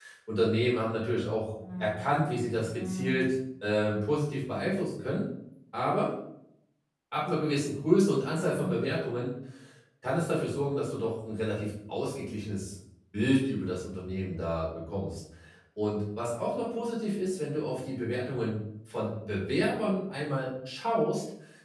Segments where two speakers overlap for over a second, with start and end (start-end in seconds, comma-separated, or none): 1.8-3.3